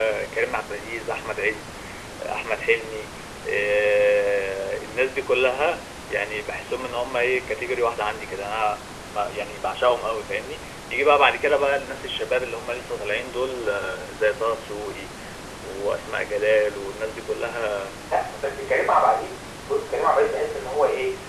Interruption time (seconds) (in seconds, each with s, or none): none